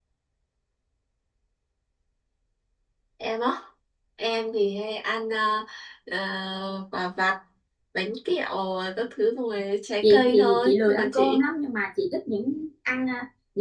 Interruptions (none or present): present